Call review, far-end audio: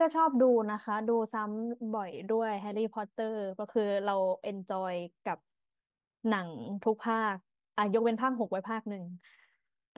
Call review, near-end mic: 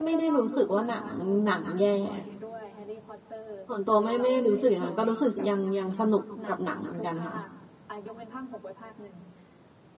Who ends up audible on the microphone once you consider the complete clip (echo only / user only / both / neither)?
both